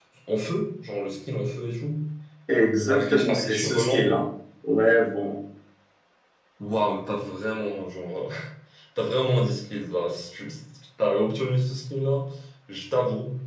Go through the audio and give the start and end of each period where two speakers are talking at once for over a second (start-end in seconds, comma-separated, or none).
2.9-4.1